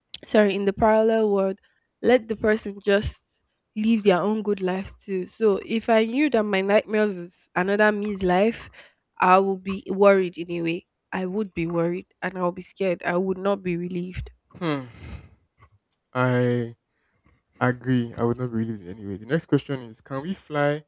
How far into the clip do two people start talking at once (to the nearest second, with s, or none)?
none